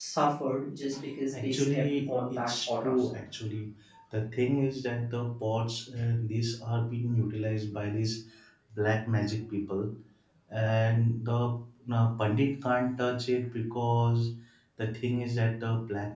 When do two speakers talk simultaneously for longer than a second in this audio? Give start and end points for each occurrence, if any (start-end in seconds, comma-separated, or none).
1.3-3.1